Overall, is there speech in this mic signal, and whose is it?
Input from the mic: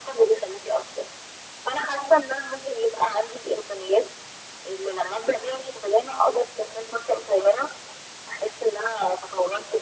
echo only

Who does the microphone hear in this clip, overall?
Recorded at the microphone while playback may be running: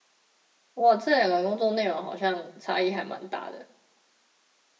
user only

